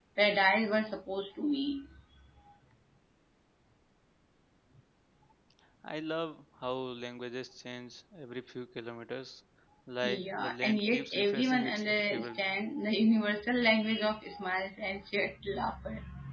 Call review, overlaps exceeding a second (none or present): present